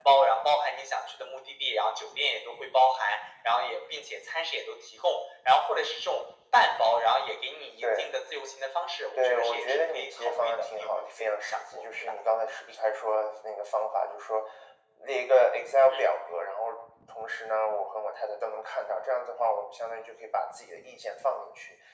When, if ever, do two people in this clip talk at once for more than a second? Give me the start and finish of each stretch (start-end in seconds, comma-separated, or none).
9.2-12.1